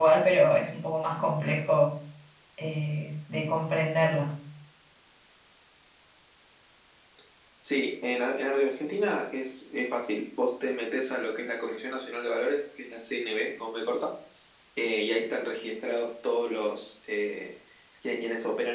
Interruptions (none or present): none